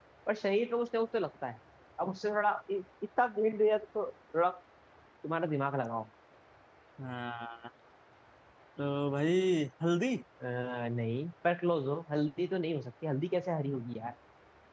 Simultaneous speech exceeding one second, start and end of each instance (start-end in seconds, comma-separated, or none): none